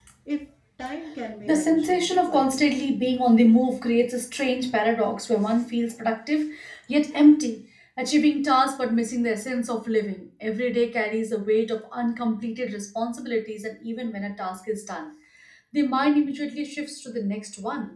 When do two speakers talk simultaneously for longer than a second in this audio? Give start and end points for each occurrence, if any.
1.5-2.8

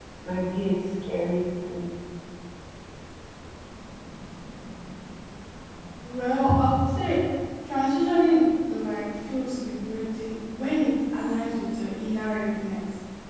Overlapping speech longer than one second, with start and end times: none

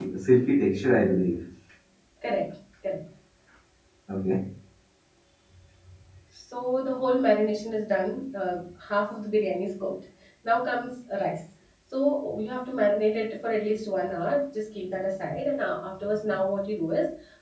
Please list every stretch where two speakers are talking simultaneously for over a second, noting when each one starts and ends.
none

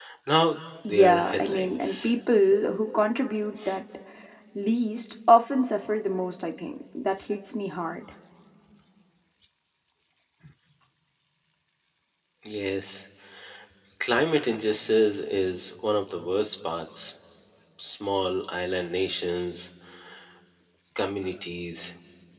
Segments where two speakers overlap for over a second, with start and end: 0.9-2.1

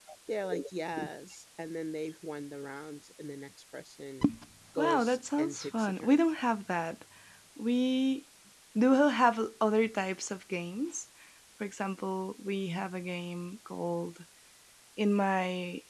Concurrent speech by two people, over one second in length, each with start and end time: 4.8-6.2

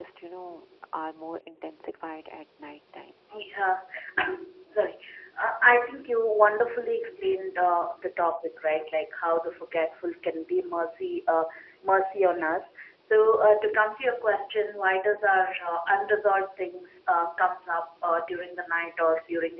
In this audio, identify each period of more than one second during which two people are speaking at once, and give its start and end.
none

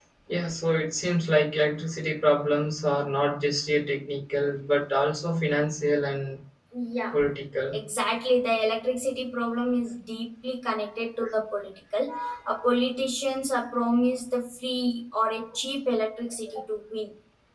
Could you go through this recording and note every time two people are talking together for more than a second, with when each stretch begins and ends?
none

